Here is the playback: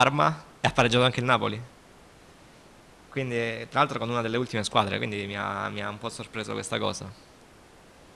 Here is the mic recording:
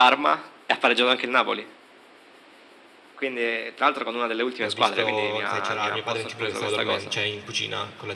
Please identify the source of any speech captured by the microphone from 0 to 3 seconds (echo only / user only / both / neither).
echo only